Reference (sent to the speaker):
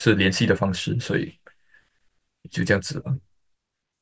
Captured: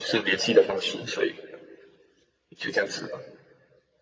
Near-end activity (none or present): none